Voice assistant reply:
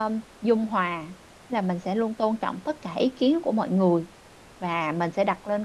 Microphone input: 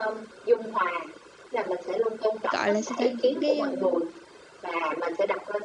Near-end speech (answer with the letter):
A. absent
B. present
B